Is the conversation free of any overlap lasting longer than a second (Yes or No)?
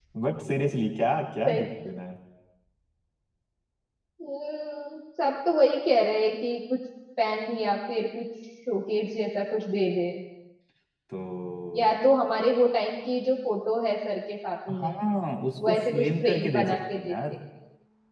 No